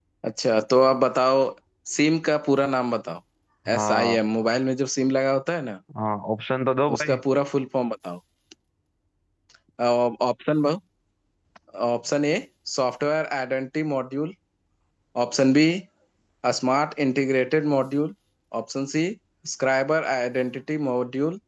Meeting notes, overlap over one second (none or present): none